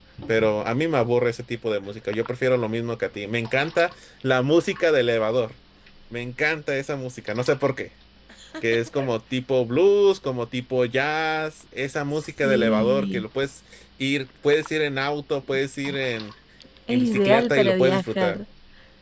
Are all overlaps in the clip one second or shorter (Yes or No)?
No